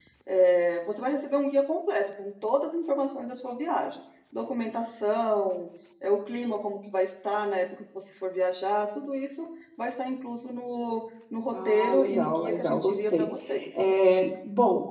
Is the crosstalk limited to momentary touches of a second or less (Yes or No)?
No